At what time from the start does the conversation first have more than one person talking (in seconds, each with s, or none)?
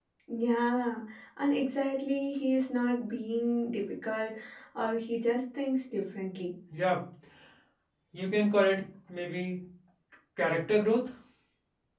none